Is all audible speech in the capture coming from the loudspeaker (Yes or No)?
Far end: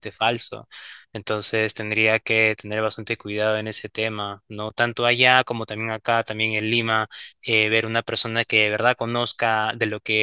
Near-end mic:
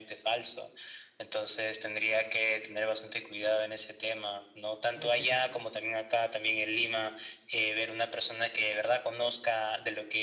No